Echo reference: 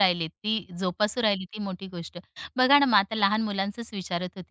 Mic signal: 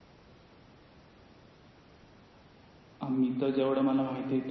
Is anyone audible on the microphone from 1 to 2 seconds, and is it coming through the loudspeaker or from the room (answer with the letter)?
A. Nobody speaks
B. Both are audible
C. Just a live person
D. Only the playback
A